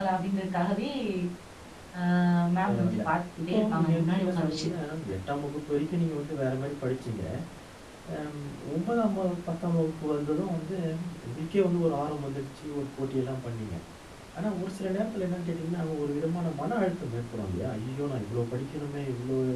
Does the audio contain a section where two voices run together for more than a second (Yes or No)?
Yes